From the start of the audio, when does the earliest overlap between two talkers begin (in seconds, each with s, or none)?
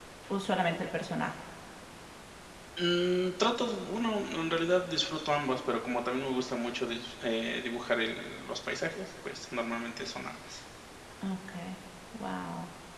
none